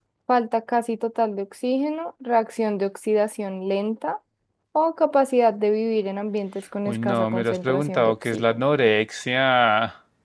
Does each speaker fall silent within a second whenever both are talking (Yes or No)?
No